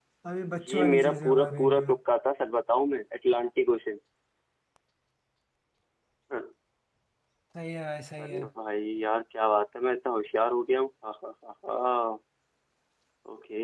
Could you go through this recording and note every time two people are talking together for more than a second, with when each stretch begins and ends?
0.7-1.9

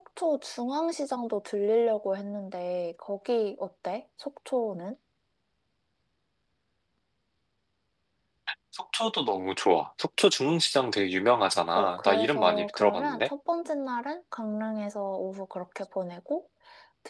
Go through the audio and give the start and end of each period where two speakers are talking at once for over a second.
11.8-13.3

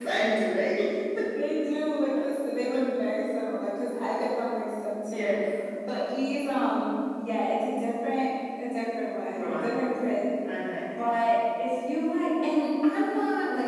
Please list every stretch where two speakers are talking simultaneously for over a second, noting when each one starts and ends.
none

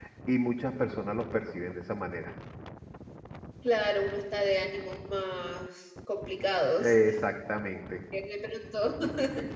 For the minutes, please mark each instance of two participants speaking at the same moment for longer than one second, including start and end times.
none

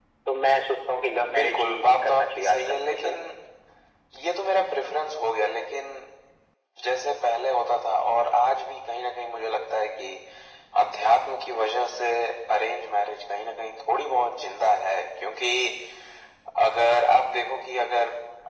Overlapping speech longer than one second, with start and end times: 1.3-3.2

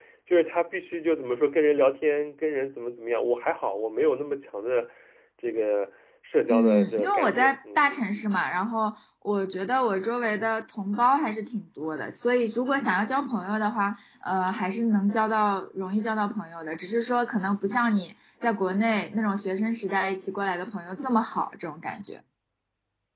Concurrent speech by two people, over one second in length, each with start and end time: 6.5-7.8

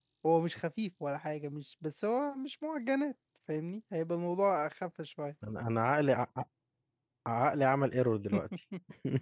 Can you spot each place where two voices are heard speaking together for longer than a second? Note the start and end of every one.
none

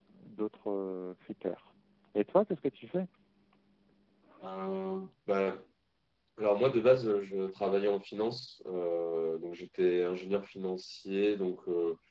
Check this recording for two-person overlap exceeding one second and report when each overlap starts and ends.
none

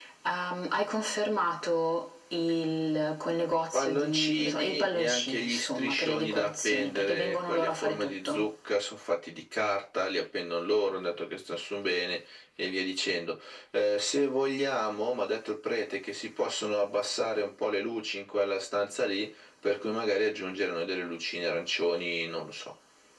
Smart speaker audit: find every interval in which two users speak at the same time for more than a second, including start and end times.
3.7-8.4

